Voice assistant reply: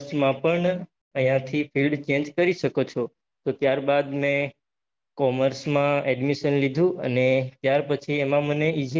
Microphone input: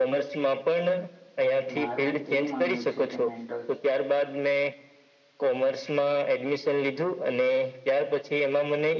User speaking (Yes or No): Yes